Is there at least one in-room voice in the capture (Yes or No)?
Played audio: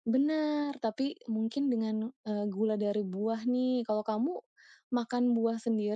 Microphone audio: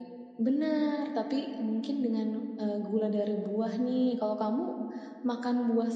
No